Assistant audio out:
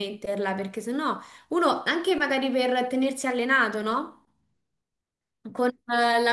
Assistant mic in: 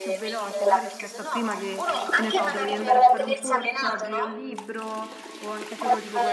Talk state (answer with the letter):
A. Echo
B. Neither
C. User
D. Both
D